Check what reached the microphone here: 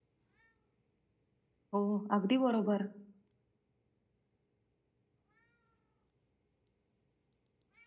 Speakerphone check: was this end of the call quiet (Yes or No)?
No